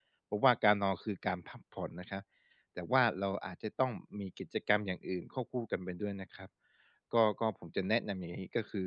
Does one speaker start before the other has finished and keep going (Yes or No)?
No